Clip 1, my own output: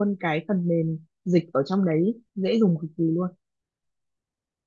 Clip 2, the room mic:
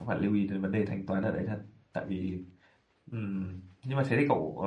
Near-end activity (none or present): present